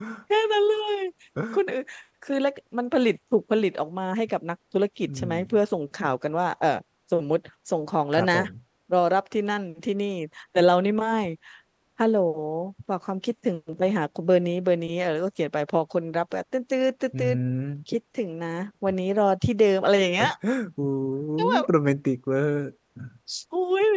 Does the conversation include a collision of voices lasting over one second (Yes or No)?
No